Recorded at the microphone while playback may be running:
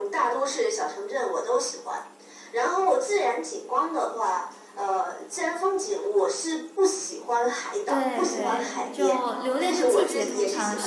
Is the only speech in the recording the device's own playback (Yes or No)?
No